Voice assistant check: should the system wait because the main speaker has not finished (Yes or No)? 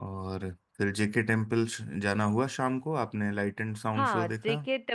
No